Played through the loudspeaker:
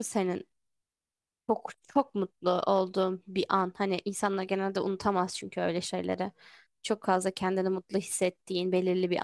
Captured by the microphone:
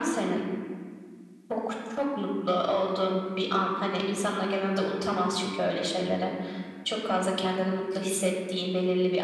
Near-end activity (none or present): none